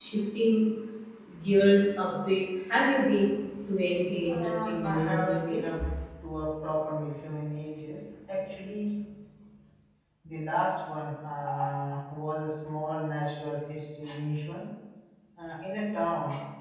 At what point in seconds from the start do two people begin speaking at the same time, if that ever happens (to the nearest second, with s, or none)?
4 s